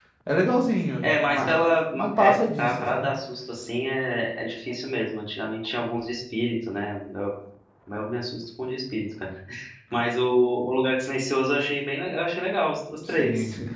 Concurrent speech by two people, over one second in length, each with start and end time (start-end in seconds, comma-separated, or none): 1.0-3.1